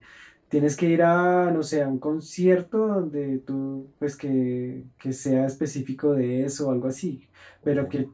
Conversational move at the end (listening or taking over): listening